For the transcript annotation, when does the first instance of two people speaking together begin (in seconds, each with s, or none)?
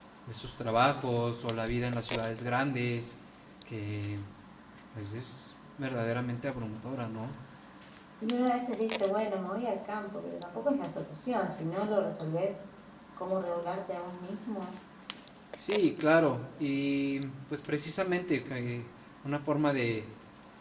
none